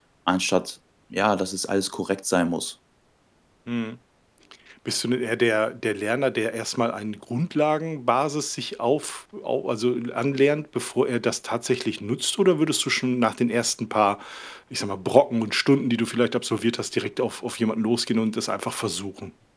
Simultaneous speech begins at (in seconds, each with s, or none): none